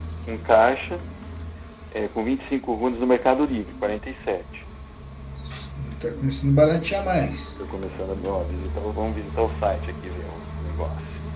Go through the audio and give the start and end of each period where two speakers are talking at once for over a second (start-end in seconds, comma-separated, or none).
none